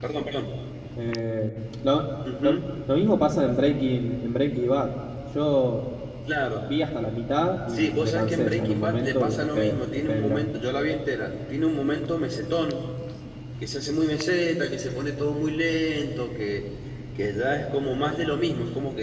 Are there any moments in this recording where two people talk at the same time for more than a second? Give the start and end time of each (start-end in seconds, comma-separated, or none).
7.7-10.4